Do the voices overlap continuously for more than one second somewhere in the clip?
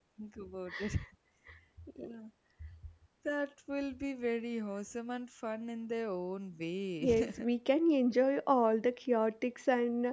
No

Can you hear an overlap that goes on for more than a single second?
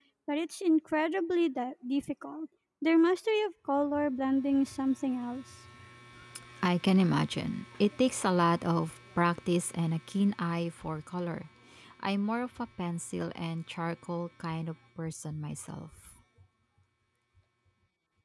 No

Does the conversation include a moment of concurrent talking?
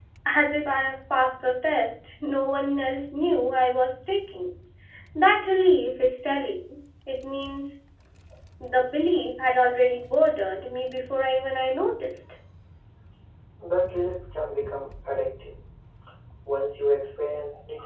No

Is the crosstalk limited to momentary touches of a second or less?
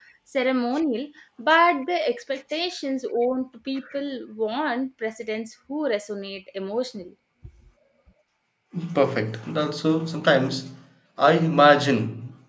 Yes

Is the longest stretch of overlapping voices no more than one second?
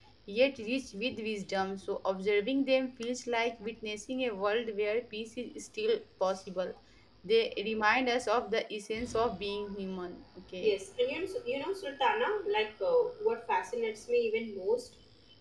Yes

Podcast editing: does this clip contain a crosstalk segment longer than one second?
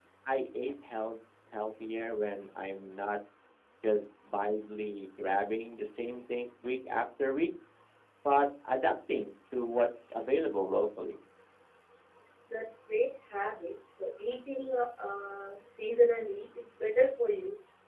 No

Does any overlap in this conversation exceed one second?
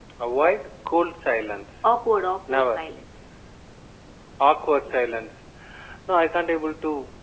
No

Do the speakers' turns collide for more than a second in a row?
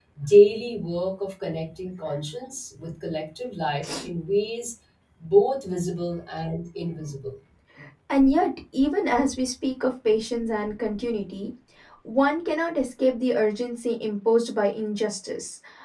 No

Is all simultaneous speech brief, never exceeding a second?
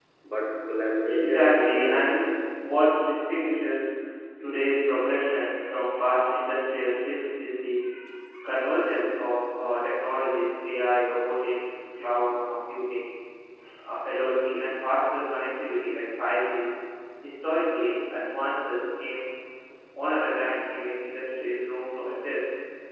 No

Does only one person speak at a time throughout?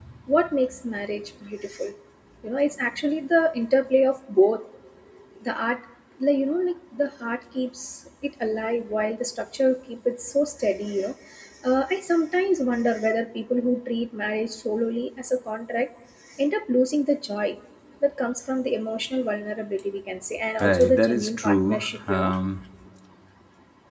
No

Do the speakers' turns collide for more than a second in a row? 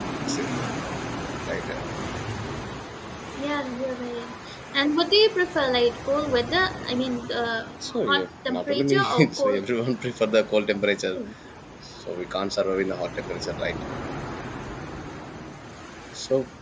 Yes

